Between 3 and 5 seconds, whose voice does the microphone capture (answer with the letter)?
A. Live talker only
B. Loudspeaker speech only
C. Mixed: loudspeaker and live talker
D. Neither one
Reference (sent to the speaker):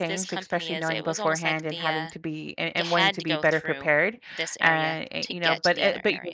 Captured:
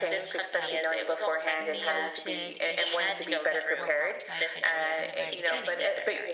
C